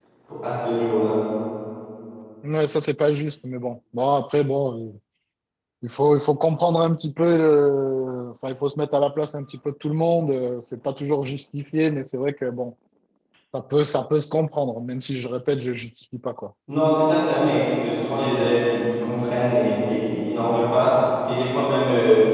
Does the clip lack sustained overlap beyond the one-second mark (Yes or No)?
Yes